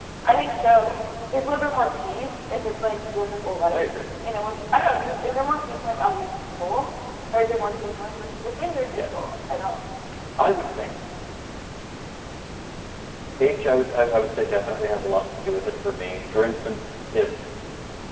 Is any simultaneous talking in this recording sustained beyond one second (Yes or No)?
No